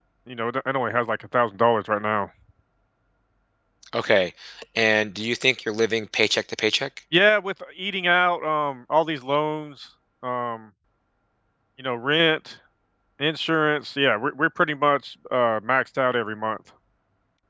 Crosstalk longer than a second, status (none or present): none